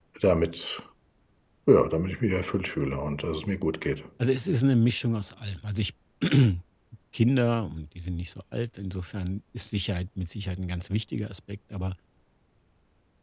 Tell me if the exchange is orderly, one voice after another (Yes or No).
Yes